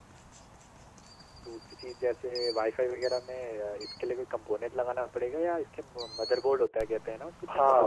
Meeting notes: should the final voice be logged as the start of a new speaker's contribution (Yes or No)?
Yes